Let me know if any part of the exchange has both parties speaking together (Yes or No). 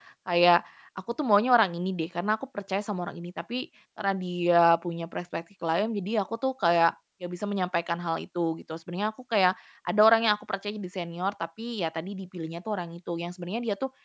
No